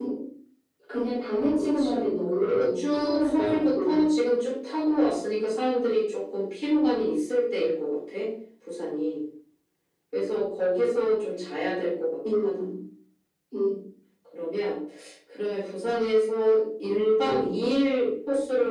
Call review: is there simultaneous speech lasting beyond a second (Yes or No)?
Yes